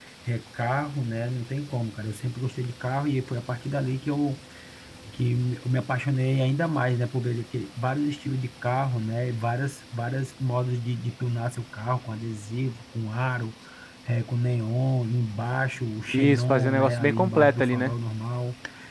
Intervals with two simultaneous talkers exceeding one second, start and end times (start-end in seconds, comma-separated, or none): 16.1-17.9